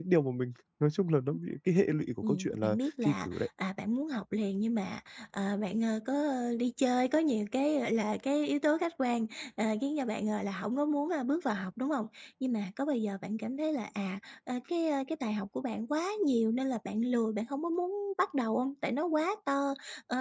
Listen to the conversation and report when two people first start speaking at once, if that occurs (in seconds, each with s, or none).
2.2 s